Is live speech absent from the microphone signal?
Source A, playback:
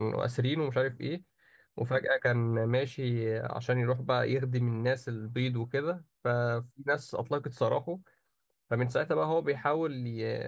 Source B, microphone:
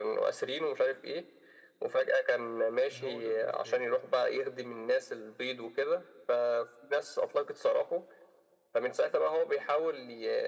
No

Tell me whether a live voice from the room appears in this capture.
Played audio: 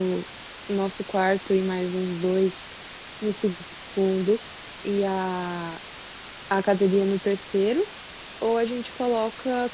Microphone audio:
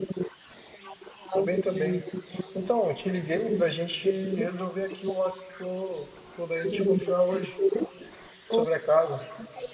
Yes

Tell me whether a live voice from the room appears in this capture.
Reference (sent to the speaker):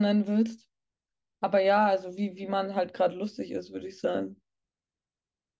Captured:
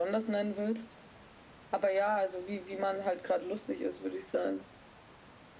No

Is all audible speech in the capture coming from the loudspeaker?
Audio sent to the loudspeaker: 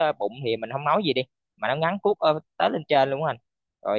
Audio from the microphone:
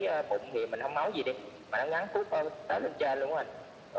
Yes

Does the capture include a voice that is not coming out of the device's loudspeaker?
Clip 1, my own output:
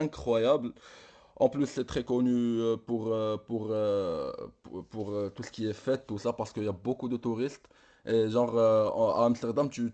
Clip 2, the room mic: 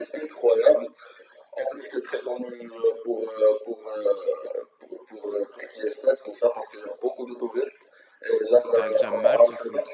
Yes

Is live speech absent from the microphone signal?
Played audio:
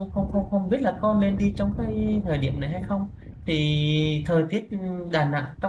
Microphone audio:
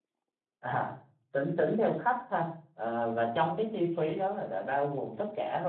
No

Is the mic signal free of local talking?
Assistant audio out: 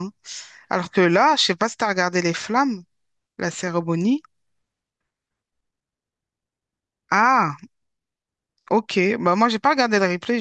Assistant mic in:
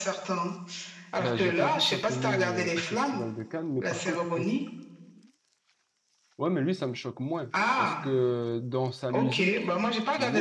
No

